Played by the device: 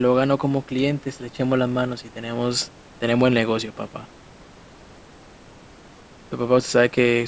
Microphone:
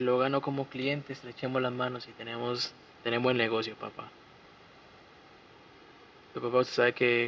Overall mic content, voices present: echo only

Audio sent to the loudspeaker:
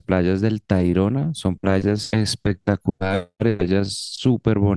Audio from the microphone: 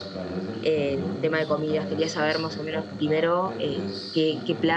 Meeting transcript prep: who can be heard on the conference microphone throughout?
both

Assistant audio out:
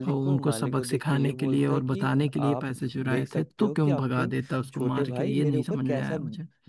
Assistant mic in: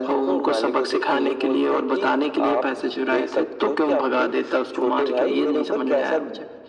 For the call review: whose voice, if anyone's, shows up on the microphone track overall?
echo only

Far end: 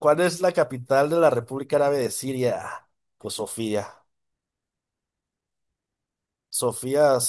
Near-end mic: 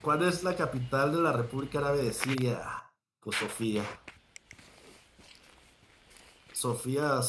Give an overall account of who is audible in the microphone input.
echo only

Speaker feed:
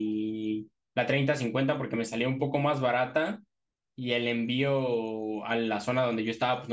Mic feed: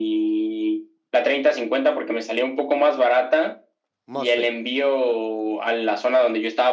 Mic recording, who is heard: both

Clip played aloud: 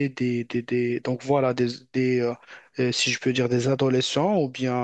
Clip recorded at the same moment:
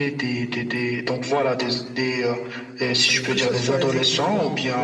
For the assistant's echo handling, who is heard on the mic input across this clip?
both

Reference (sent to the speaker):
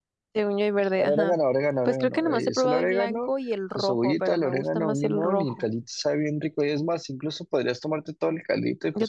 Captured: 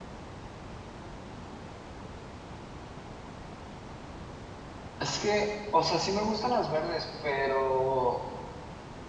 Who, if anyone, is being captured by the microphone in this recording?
user only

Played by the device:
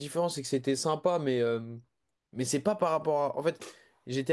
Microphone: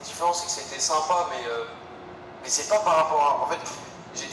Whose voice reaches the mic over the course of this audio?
echo only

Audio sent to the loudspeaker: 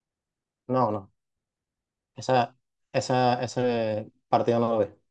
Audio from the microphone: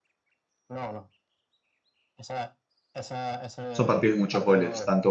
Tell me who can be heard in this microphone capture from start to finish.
both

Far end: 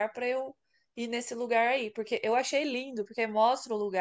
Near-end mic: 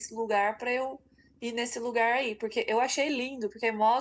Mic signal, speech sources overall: echo only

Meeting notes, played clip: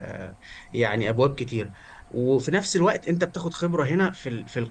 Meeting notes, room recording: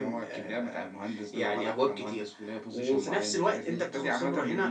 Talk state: both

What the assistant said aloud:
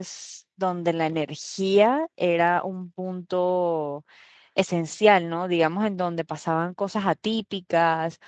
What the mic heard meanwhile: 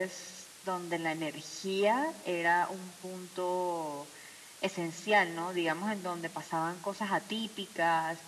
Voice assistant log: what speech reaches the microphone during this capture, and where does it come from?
echo only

